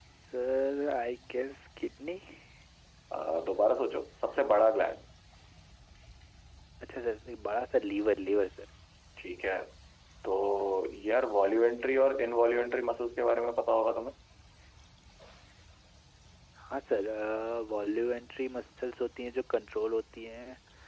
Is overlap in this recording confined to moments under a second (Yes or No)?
Yes